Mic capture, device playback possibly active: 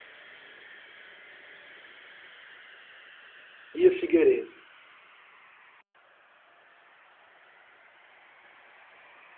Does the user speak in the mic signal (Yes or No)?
Yes